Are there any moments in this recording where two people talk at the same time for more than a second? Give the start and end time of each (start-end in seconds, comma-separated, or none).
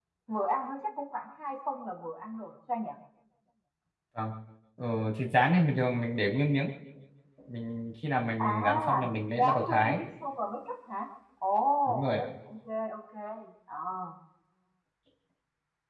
8.5-10.0